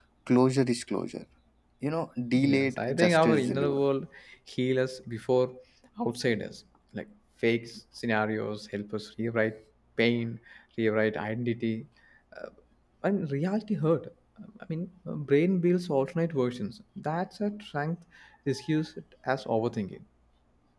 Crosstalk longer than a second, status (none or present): present